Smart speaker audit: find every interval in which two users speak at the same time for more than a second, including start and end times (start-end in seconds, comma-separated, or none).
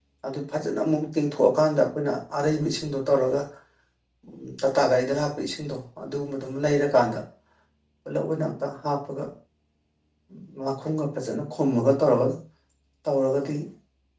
none